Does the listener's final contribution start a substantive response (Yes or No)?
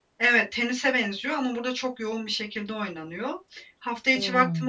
No